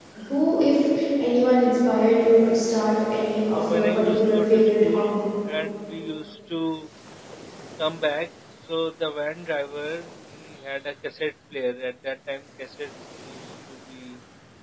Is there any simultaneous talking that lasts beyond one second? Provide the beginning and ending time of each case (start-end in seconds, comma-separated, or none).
3.5-5.0